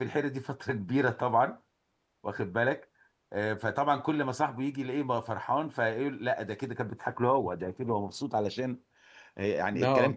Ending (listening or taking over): listening